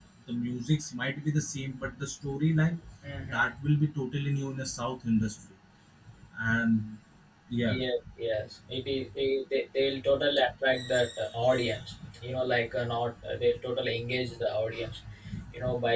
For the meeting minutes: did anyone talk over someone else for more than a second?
No

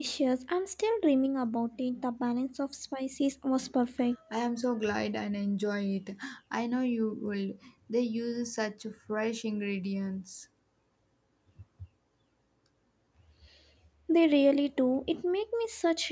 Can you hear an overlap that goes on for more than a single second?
No

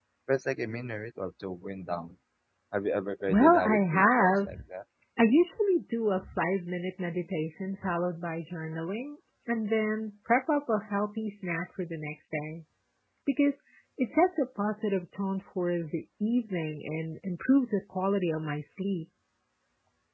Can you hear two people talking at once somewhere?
Yes, from 3.3 s

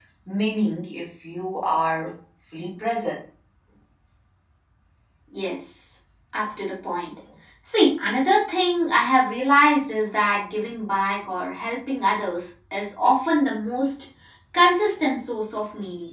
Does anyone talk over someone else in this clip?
No

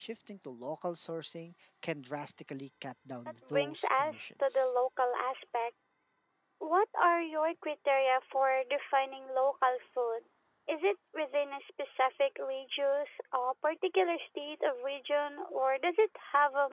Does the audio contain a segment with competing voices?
Yes, from 3.4 s

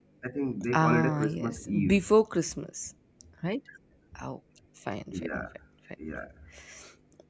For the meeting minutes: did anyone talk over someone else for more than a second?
Yes, from 0.7 s

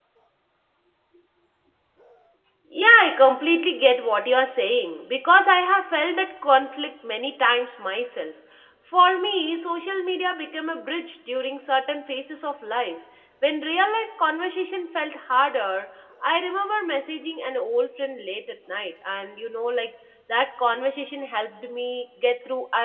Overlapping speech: No

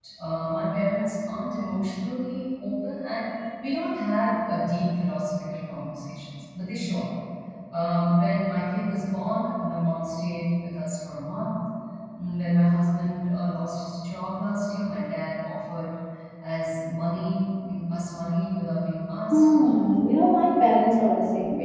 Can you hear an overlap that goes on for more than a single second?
No

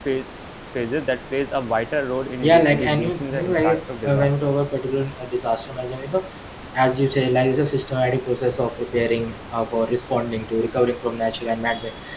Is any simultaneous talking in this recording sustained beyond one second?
Yes, from 2.4 s

